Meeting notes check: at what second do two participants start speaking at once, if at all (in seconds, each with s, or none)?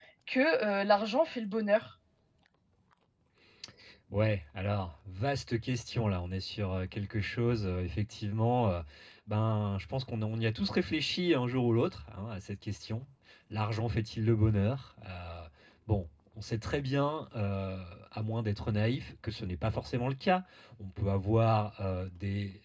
none